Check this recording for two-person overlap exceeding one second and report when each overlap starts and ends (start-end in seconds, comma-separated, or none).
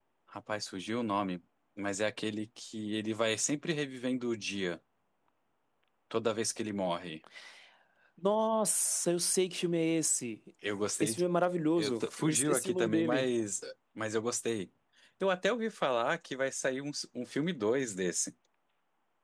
11.8-13.3